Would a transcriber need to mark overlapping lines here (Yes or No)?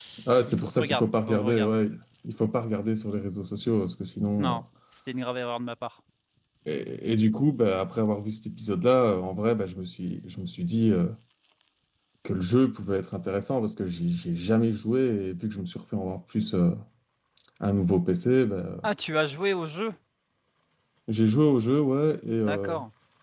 Yes